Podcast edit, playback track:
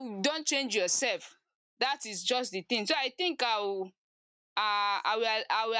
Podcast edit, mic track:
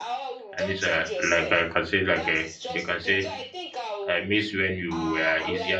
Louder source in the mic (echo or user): user